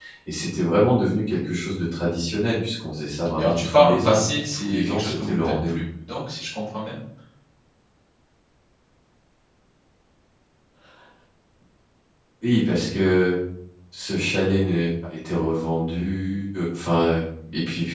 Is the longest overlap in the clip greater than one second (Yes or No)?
Yes